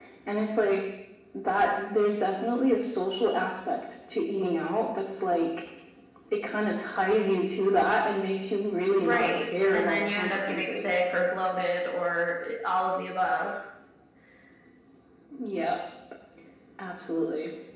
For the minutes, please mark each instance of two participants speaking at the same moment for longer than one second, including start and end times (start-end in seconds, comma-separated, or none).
8.9-11.2